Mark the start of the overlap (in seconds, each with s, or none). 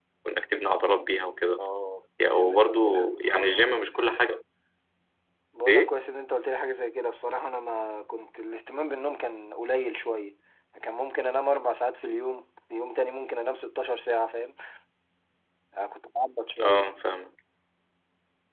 2.2 s